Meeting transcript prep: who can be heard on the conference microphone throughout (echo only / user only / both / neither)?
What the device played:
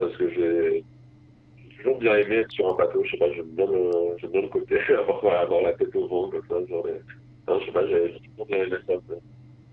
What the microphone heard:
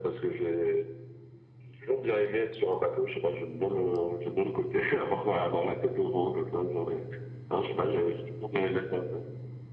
echo only